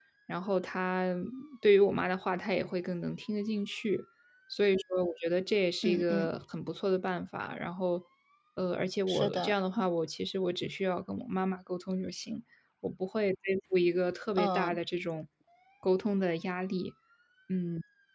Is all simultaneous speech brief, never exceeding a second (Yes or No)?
Yes